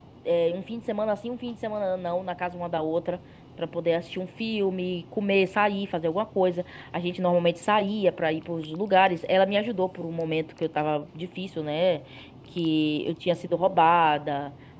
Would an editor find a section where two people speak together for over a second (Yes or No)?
No